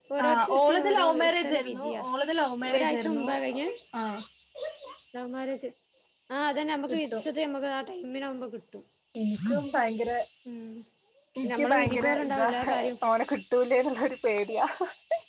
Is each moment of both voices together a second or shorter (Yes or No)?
No